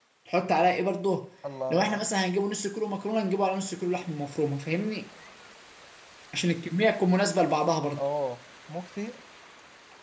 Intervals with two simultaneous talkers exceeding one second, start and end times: none

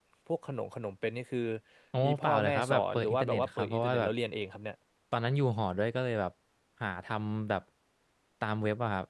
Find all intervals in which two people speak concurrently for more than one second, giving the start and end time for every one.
2.0-4.1

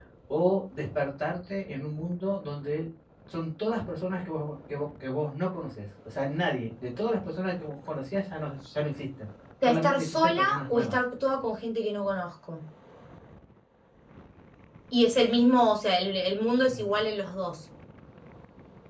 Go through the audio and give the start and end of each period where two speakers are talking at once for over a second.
9.6-11.0

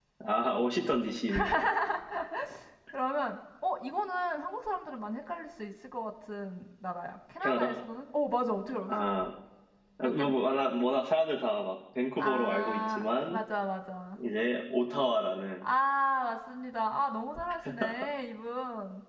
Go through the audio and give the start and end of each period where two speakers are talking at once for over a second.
12.2-13.4

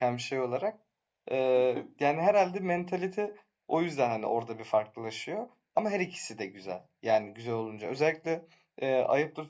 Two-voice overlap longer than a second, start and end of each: none

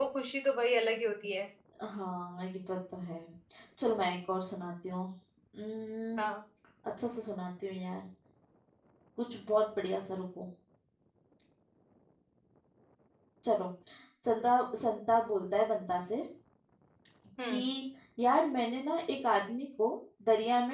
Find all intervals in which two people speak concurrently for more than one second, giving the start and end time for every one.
none

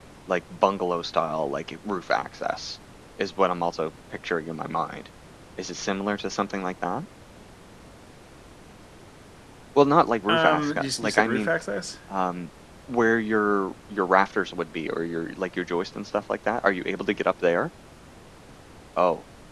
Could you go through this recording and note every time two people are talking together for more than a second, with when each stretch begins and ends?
10.3-11.5

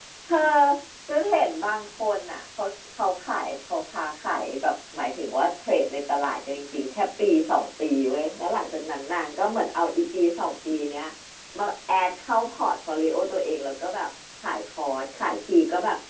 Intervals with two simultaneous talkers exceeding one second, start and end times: none

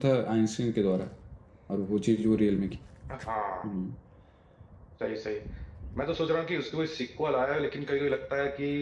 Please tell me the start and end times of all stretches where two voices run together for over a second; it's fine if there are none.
none

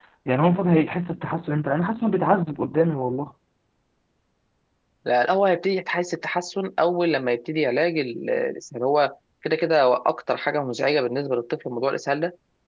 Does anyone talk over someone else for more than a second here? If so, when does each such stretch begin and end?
none

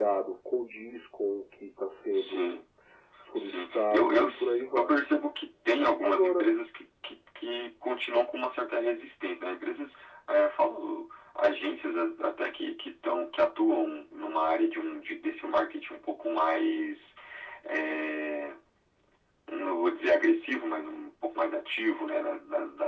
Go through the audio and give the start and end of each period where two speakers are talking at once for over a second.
3.4-5.0

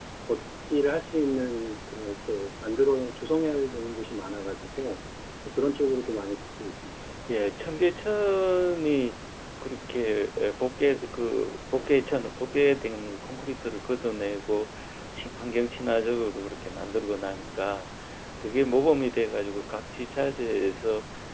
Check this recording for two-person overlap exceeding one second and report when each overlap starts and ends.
none

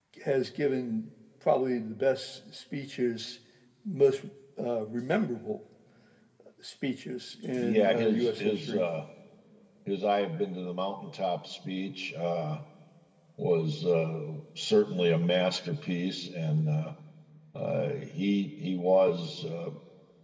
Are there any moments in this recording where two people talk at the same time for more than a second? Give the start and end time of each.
7.6-8.8

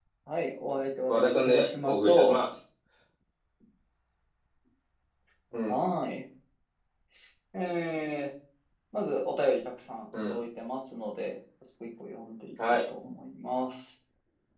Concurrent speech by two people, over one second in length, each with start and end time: 1.1-2.4

